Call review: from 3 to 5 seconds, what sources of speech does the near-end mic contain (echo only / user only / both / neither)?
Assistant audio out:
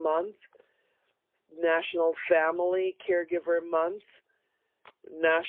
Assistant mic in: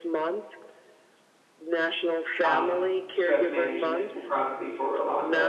both